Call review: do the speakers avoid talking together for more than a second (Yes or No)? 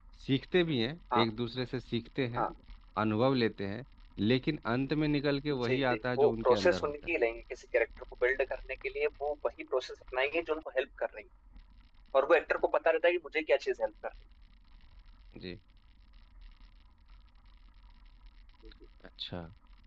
No